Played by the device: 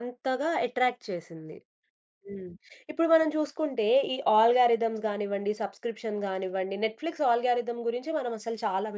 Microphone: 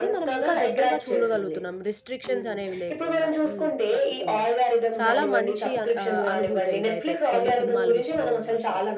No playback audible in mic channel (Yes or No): No